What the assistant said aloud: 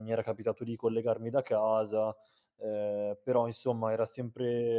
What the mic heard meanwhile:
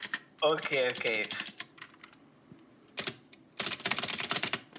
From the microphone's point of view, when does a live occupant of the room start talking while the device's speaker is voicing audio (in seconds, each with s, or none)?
0.4 s